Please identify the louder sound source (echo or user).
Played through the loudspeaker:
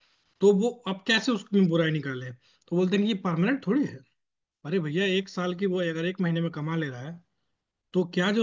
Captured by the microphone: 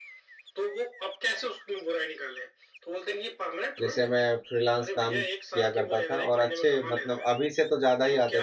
user